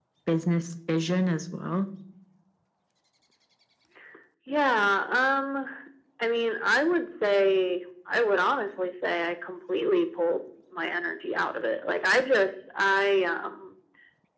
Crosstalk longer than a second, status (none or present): none